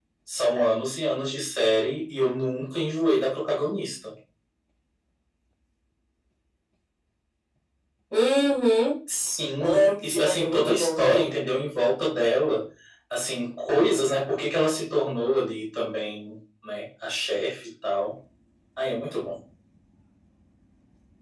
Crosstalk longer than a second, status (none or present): present